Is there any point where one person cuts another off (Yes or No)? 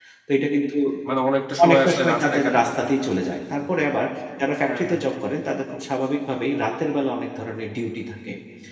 Yes